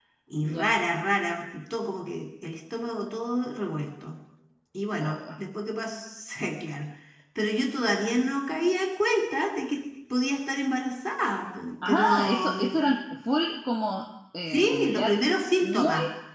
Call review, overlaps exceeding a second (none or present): present